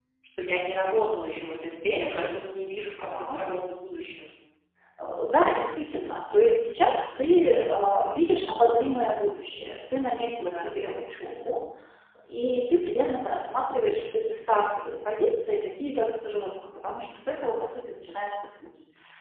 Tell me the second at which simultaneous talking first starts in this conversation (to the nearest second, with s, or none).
2 s